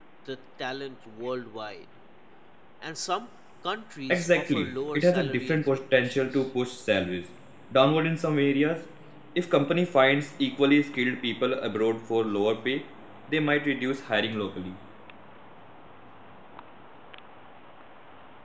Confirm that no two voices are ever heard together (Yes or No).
No